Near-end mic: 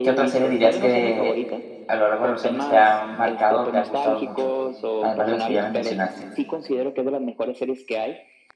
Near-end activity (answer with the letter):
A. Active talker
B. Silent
A